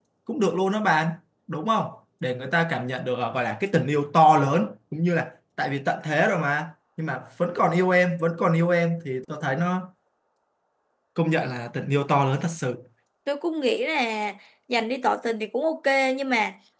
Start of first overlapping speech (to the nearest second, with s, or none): none